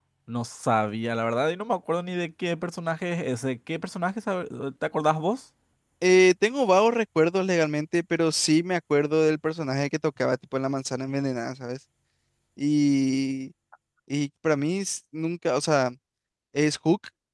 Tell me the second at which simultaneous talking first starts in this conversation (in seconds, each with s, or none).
none